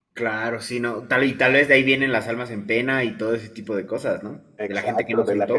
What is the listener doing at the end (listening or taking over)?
taking over